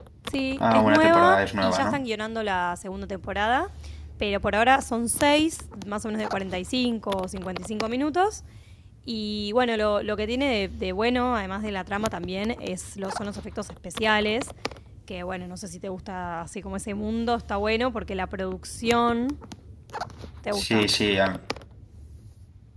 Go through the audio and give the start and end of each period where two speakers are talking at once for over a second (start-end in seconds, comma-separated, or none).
0.7-2.0